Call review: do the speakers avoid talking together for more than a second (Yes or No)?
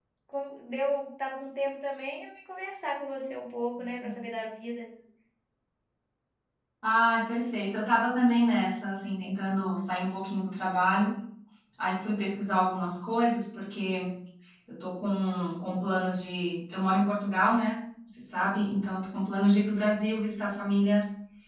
Yes